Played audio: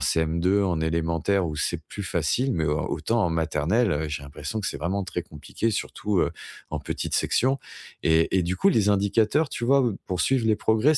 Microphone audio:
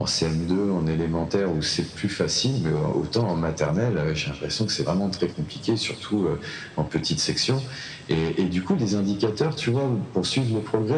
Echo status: present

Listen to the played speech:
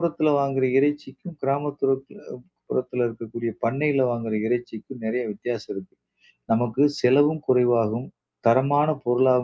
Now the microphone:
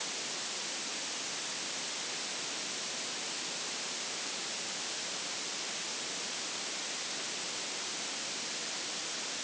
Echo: none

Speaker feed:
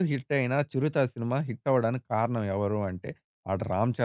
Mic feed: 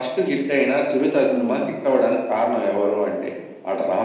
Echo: present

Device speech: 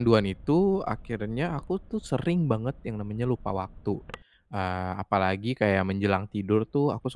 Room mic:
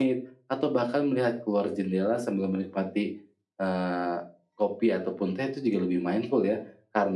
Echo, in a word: none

